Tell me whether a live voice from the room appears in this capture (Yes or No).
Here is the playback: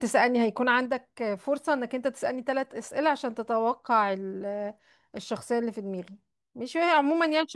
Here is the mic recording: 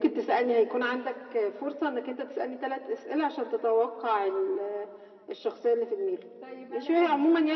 Yes